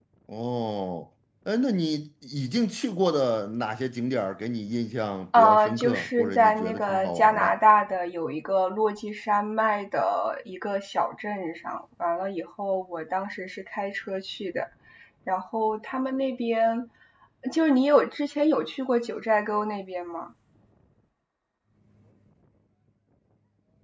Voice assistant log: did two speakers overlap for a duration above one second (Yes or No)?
Yes